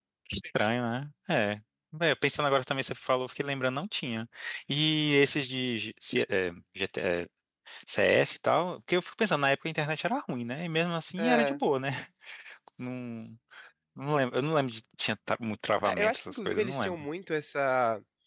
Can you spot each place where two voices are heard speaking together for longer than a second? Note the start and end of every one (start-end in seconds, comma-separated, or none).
15.8-17.1